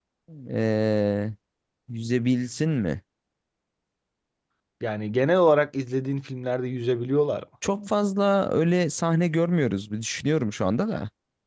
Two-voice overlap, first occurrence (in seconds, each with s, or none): none